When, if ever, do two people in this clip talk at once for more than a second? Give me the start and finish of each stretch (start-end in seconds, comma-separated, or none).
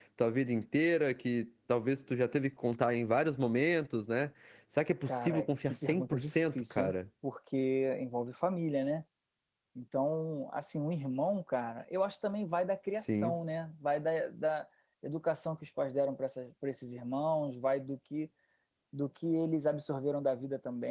5.1-6.9